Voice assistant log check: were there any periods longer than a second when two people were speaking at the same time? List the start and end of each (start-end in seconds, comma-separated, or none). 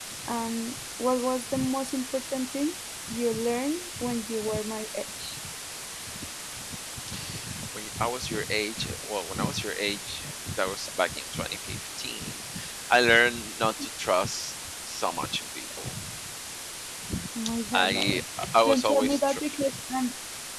17.7-19.4